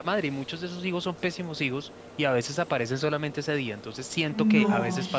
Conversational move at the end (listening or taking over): taking over